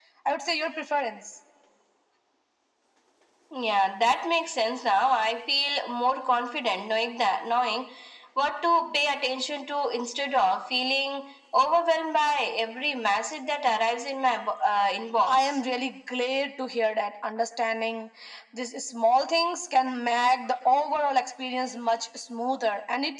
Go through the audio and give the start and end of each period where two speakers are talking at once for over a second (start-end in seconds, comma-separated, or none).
none